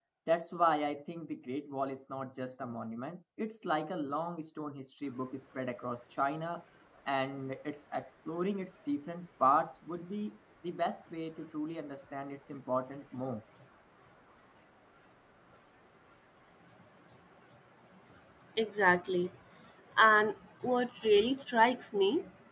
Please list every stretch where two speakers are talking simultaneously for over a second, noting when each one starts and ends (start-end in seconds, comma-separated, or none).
none